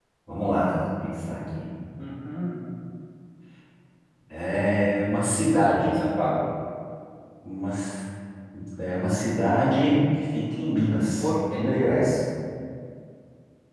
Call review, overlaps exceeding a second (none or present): none